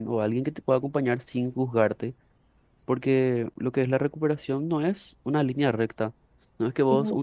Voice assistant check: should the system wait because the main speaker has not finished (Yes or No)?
Yes